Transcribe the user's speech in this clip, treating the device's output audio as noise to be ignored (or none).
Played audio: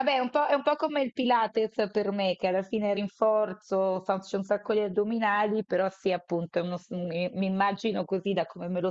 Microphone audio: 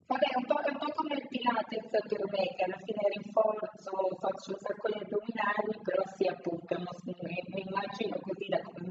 none